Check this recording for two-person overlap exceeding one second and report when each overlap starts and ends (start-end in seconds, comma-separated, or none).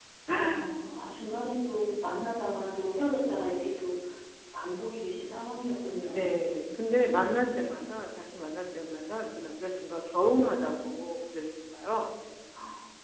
none